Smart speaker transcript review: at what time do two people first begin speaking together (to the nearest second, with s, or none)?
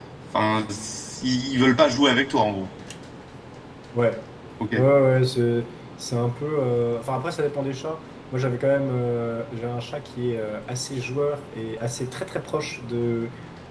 none